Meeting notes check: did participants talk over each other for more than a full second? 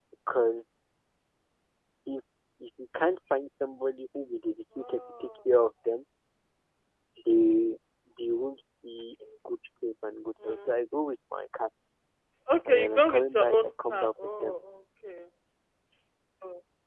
Yes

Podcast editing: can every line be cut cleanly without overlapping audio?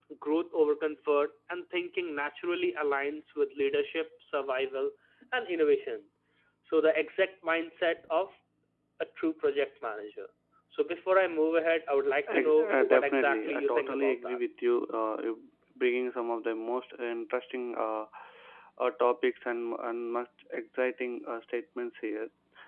No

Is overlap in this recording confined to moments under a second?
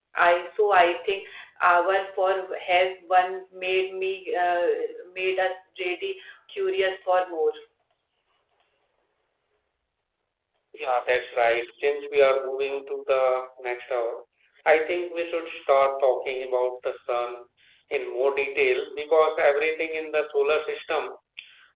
Yes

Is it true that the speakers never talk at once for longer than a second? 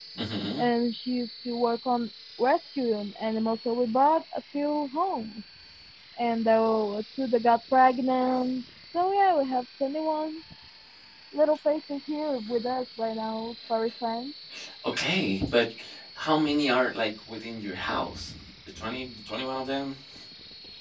Yes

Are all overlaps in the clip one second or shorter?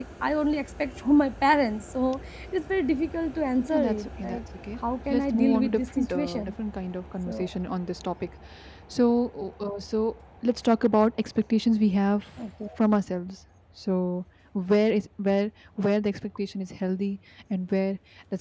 No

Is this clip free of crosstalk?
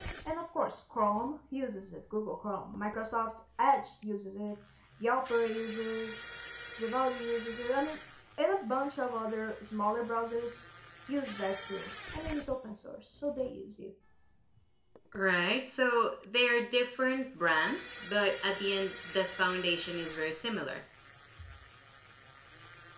Yes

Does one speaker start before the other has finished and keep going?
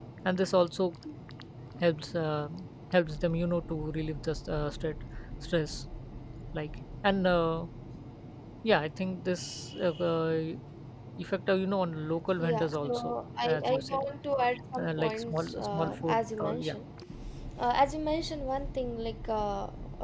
Yes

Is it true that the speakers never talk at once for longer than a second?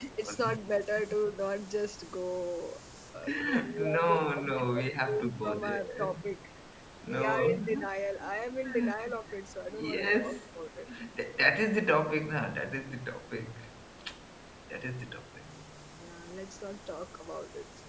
No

